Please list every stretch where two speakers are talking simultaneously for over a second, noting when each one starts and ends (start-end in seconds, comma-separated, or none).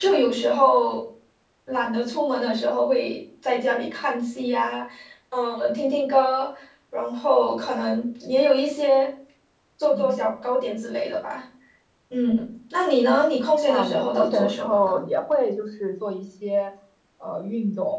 13.7-15.0